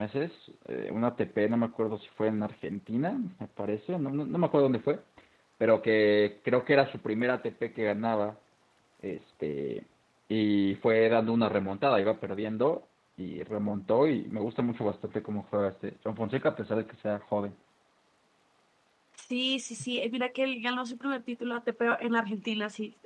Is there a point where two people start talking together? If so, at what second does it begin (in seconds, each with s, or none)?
none